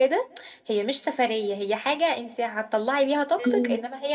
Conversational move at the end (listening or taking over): listening